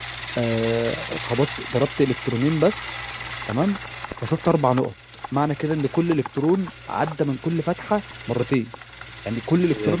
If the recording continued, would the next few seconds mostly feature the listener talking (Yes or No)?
Yes